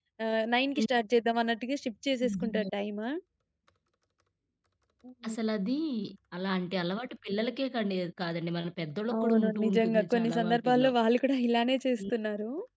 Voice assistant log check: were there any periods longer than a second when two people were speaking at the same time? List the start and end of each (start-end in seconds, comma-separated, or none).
9.2-10.9